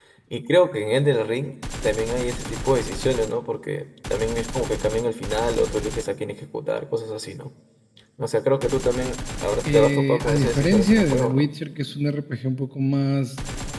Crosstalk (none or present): present